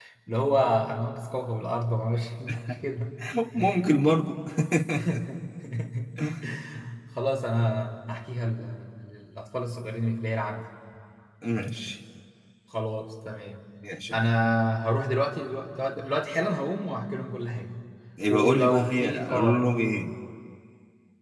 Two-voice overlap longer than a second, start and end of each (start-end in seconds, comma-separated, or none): 18.3-19.6